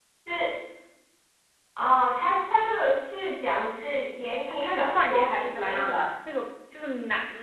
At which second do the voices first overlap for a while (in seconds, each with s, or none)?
4.5 s